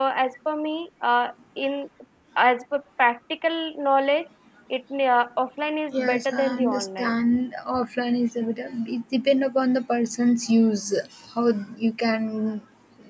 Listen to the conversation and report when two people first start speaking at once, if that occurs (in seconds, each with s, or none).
5.9 s